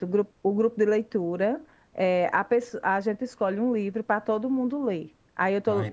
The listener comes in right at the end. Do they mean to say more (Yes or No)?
No